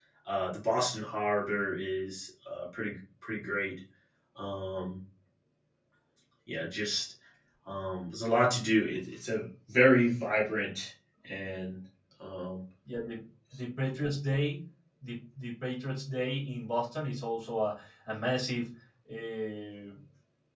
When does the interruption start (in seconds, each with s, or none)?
none